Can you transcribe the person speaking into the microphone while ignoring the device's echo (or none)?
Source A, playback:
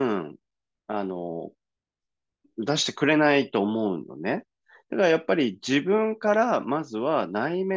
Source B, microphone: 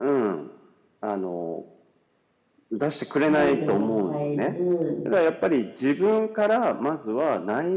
態度を変えず、